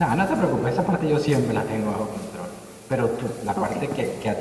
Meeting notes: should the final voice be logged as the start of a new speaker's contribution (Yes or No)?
No